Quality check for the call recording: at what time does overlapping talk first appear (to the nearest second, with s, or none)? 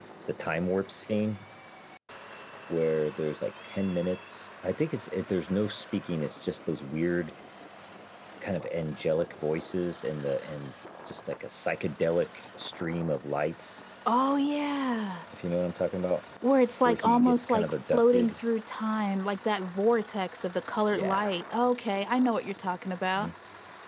17 s